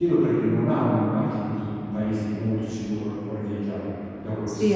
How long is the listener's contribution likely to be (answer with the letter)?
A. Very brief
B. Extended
B